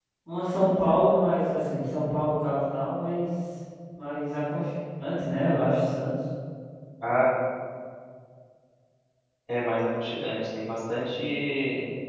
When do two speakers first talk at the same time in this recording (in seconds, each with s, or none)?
none